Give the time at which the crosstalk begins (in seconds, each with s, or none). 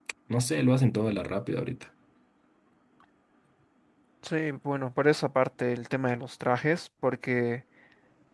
none